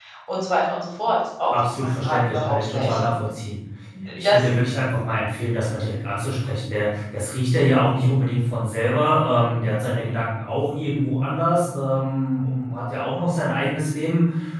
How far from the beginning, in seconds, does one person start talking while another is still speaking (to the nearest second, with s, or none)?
2 s